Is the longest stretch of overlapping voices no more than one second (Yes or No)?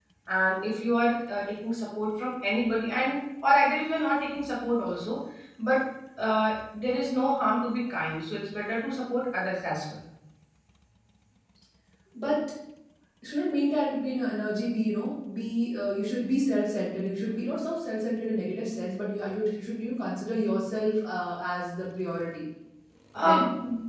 Yes